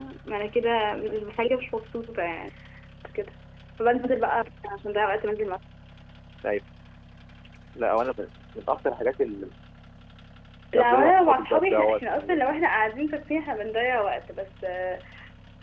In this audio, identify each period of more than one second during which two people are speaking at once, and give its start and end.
10.7-12.4

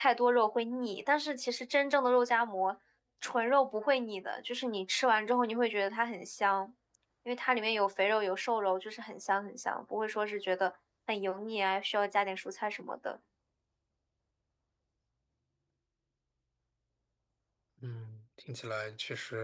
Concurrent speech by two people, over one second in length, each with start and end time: none

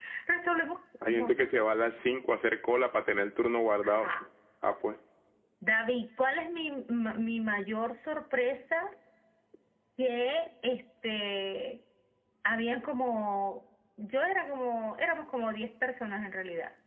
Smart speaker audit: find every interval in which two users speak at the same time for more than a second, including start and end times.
none

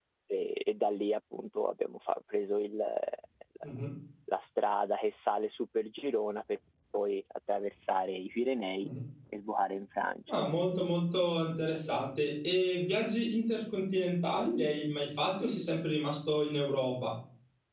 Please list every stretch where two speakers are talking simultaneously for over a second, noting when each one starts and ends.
none

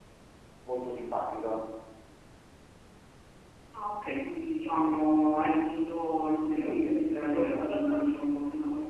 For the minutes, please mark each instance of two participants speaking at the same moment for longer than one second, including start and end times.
6.5-8.0

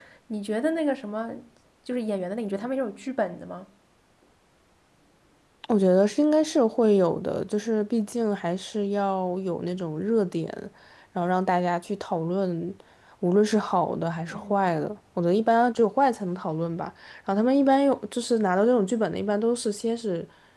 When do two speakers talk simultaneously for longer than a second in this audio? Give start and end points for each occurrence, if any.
none

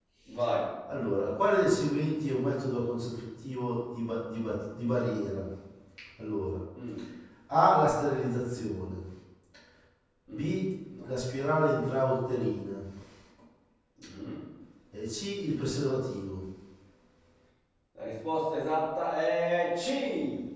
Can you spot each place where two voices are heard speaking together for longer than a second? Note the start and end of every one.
none

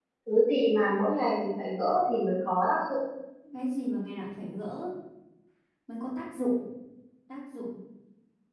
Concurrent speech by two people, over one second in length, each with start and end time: none

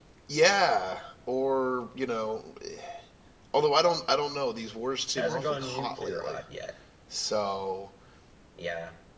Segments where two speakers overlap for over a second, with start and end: 5.2-6.4

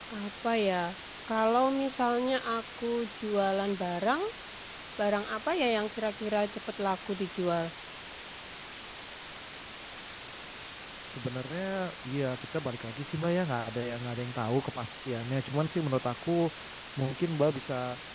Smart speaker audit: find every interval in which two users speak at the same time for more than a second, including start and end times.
none

